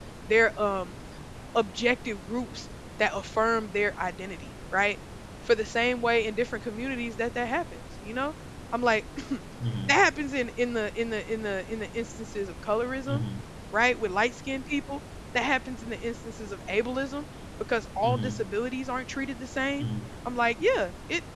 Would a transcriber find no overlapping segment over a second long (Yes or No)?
Yes